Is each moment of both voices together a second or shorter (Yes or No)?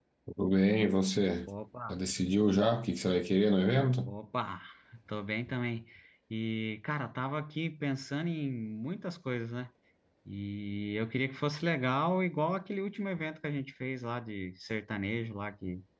Yes